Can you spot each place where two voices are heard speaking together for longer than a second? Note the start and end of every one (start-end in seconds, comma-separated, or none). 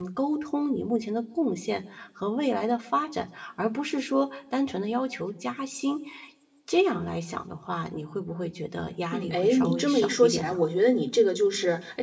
9.1-10.6